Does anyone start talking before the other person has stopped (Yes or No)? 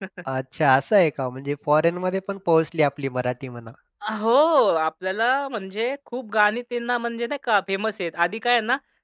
No